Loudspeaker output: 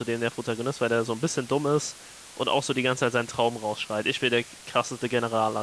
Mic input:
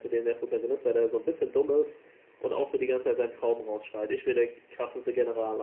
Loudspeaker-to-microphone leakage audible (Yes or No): Yes